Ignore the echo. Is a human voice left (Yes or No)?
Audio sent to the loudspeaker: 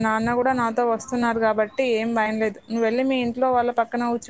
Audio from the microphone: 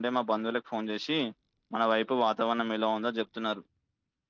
Yes